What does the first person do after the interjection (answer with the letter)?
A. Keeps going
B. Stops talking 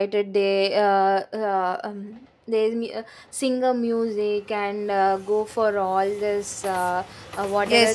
B